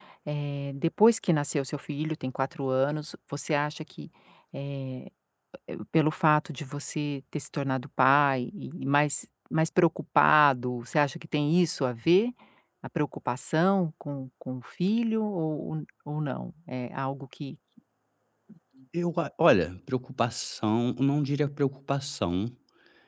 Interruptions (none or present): none